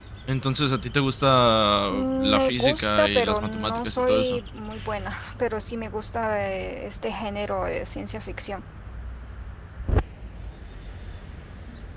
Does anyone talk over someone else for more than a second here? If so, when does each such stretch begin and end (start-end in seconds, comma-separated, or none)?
1.9-4.4